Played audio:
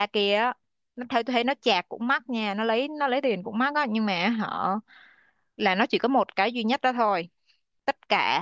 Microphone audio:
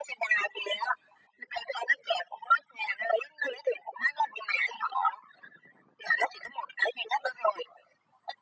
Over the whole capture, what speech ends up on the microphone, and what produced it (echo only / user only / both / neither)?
echo only